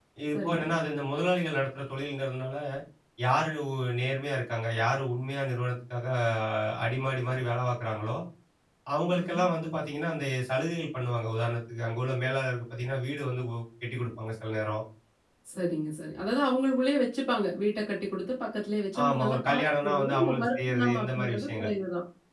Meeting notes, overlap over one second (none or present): present